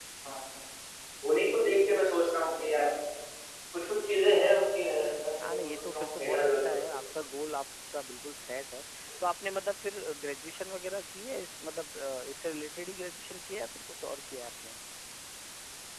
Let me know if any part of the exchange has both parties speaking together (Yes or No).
Yes